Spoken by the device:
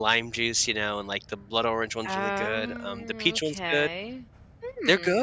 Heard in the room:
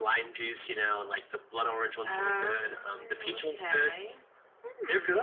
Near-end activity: none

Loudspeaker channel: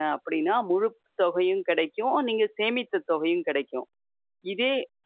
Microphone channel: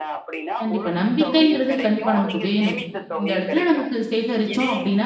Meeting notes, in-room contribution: present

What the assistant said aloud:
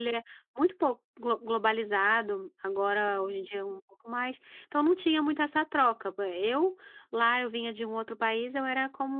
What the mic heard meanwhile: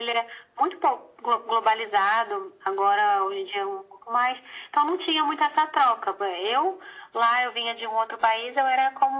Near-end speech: none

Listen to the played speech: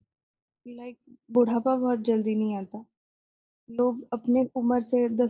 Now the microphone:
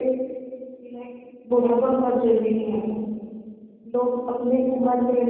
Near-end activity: none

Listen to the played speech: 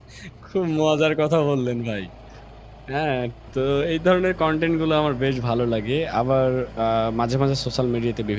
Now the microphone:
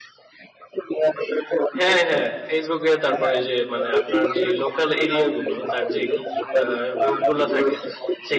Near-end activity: present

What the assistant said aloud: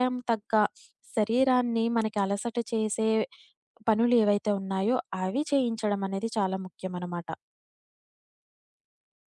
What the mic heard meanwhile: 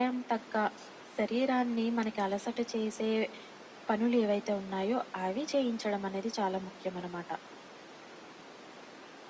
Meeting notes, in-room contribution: none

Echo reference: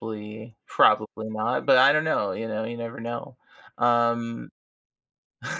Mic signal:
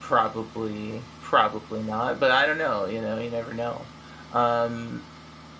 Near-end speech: none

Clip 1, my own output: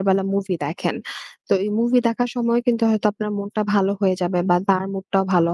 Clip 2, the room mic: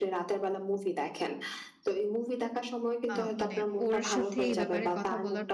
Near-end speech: present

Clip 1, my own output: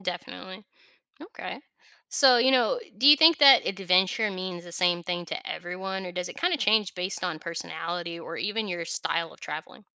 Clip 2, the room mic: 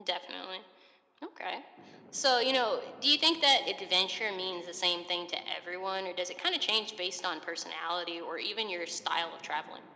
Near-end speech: none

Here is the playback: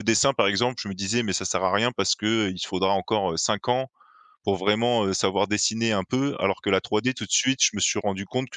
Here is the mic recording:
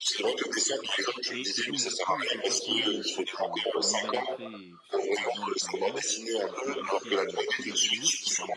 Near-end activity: present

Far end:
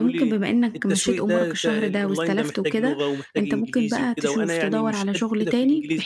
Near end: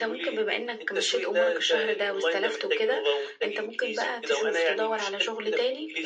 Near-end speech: none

